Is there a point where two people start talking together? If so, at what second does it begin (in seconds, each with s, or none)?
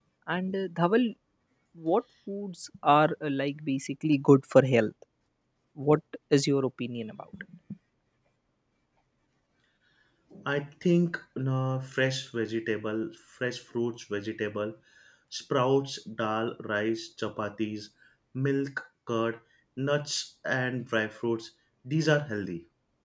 none